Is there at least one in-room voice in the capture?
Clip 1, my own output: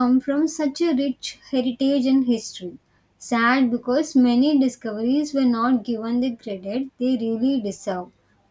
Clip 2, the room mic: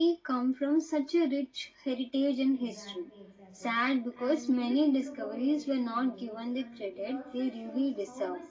Yes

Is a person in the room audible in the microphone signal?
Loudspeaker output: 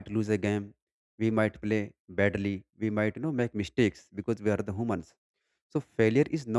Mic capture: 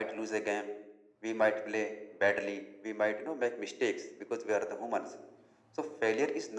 No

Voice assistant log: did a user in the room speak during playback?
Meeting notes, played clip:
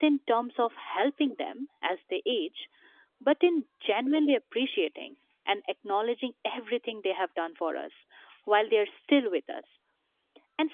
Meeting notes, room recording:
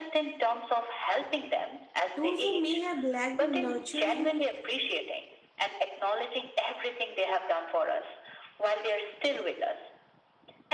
Yes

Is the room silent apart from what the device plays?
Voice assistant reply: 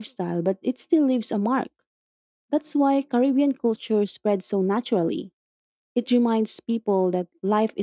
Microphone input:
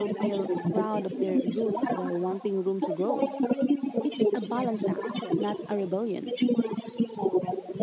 No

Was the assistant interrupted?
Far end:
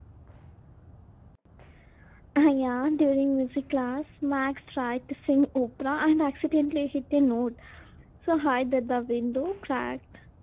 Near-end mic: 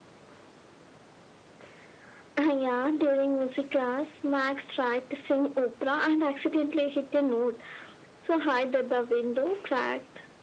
No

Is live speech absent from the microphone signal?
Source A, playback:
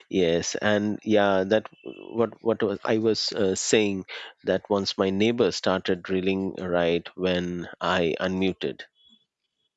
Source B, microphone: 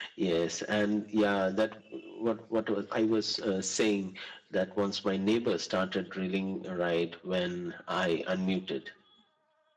Yes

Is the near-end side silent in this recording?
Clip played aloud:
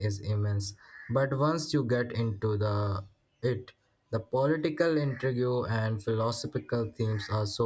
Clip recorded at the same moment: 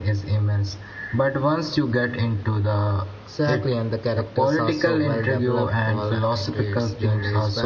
No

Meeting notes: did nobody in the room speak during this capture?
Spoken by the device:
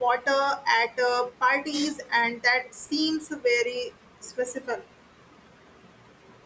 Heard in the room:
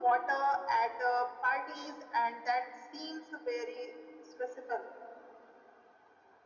Yes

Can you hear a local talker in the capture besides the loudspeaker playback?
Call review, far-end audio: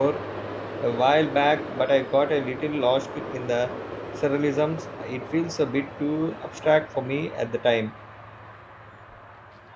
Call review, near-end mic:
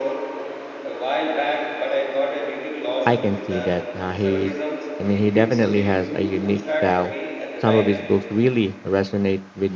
Yes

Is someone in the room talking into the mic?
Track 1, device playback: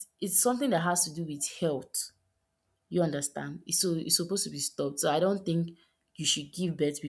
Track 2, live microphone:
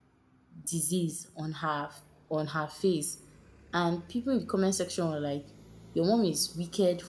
Yes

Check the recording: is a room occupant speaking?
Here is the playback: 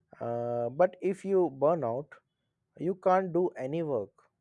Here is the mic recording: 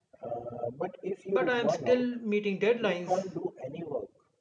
Yes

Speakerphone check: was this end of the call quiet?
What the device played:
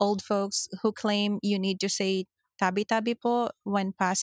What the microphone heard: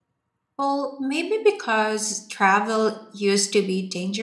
No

